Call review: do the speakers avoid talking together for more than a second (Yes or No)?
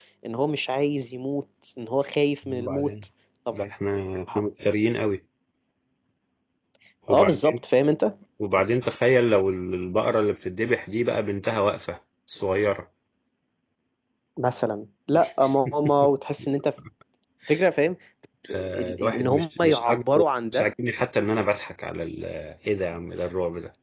No